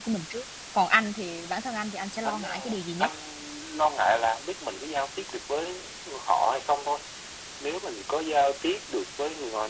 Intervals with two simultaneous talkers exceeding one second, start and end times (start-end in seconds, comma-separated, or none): none